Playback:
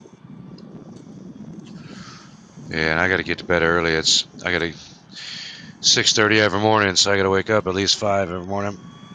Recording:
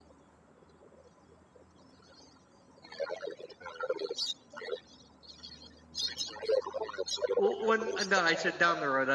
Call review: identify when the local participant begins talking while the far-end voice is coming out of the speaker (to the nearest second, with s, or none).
7 s